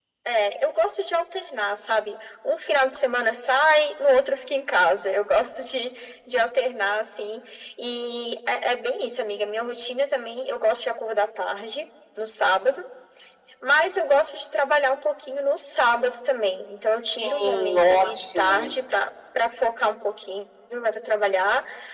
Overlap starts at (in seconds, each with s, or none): 17.2 s